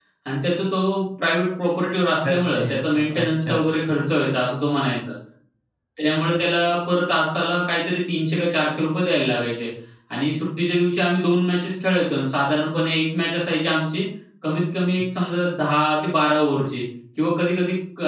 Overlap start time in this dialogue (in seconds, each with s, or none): 2.2 s